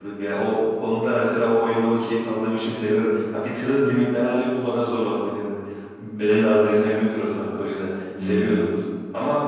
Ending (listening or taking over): listening